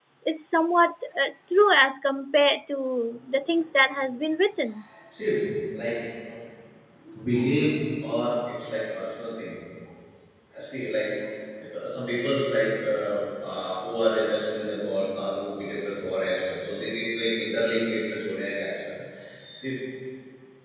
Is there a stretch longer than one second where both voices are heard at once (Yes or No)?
No